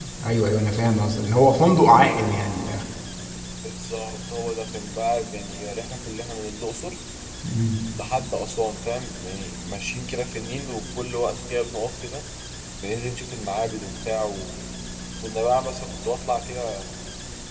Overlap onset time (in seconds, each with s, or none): none